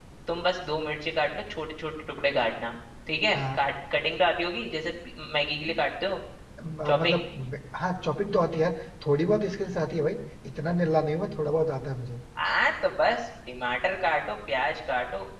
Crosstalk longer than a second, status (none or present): none